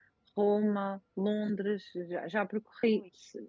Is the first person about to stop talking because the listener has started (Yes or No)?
No